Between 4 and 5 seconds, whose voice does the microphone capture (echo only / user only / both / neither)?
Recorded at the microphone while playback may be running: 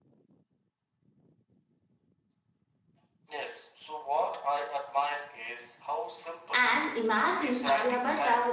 echo only